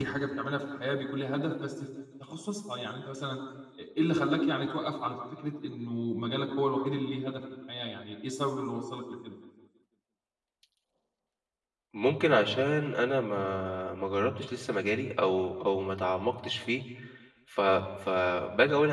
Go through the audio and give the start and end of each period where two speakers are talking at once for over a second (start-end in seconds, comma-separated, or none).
none